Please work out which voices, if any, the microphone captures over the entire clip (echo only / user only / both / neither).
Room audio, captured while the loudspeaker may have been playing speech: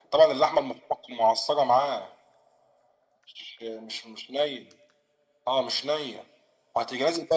echo only